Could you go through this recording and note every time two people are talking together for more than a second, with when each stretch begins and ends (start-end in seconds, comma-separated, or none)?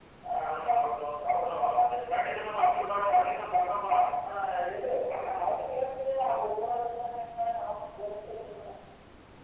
none